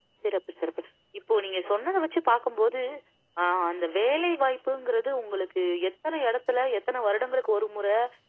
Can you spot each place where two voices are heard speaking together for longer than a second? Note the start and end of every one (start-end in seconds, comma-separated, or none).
none